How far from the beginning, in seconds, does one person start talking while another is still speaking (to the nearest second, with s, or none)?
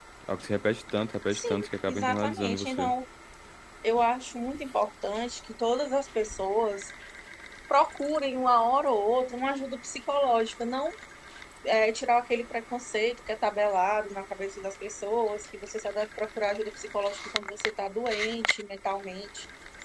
1 s